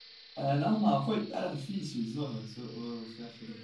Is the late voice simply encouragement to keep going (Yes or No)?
No